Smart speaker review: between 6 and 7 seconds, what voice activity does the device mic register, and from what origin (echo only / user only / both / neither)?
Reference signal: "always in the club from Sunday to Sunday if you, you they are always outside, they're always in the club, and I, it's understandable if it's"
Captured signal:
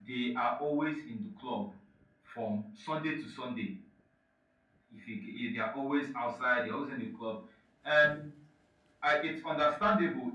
echo only